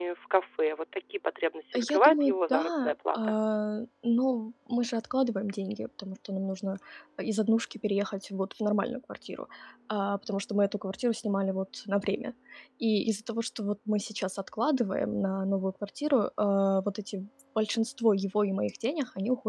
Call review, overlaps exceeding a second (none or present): present